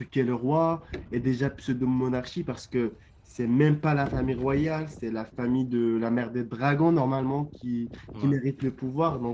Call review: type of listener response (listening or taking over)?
listening